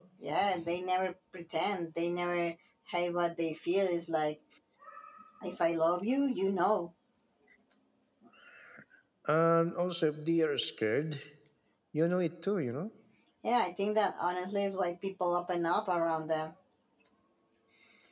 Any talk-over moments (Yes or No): No